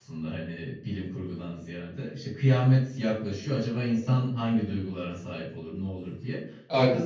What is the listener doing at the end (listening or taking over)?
listening